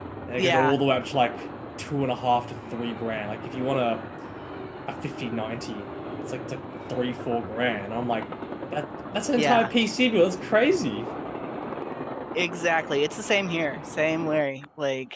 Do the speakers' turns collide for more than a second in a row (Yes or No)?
No